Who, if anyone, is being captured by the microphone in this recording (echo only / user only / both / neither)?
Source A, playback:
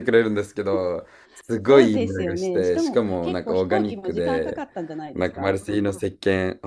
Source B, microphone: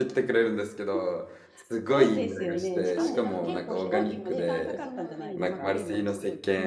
both